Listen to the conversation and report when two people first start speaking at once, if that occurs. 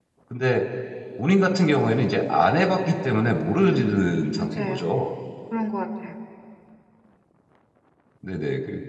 3.6 s

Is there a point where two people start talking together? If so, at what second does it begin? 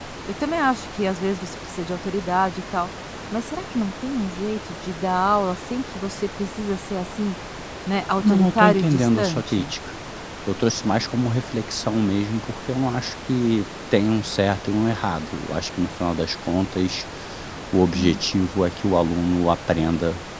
8.2 s

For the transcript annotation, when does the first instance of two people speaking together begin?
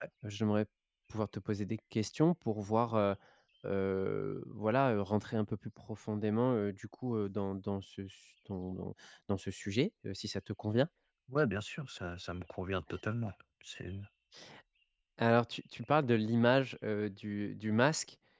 none

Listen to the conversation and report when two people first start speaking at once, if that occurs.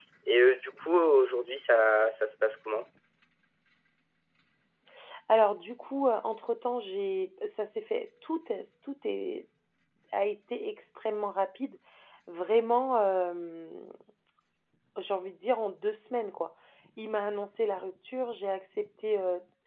none

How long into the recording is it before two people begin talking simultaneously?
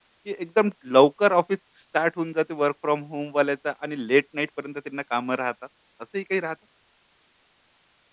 none

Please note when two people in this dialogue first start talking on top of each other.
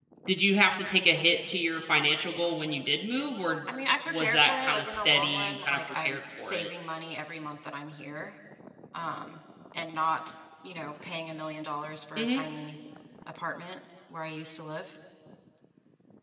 4.1 s

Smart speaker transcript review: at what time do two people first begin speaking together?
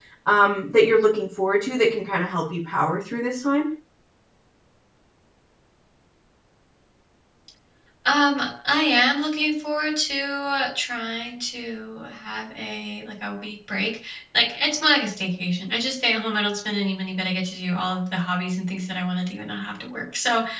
none

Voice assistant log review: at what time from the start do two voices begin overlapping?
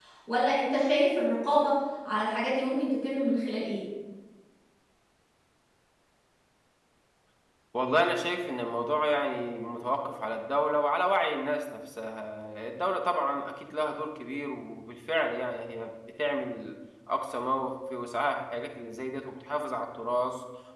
none

